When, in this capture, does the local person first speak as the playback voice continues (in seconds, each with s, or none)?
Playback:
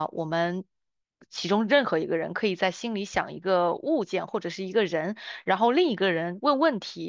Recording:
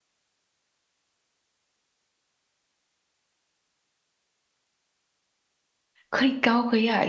6.1 s